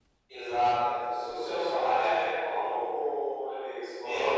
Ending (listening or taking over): taking over